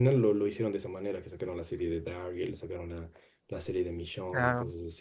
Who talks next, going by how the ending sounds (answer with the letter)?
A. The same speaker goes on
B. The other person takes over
A